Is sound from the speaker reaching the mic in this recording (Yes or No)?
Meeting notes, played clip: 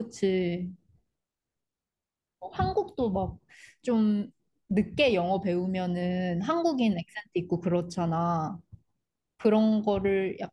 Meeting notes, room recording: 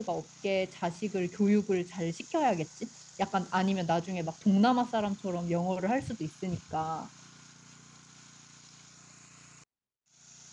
No